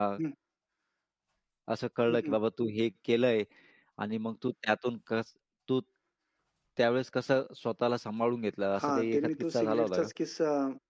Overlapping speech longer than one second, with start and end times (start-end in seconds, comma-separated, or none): 8.8-10.1